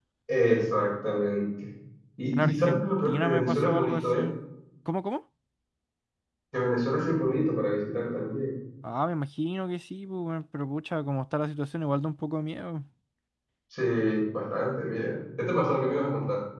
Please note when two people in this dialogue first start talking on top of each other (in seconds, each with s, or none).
2.3 s